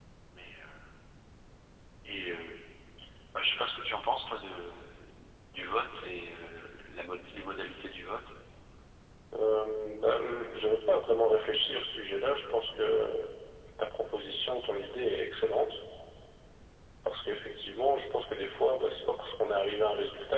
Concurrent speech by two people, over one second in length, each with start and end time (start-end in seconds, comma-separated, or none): none